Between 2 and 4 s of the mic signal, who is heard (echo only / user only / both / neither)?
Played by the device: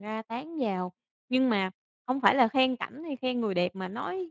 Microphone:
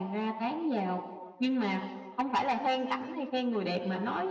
echo only